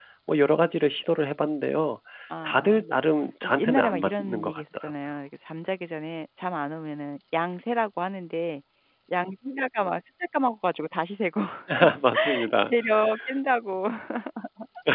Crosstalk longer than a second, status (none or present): present